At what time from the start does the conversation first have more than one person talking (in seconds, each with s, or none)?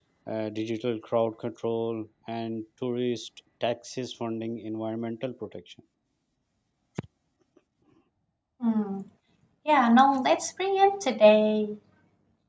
none